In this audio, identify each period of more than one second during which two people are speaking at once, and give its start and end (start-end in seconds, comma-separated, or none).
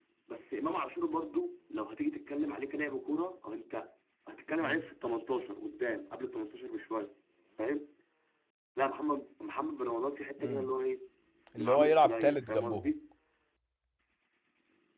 11.6-12.9